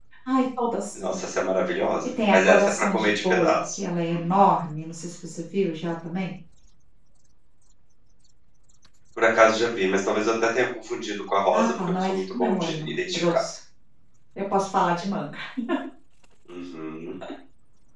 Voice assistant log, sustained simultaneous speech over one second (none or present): present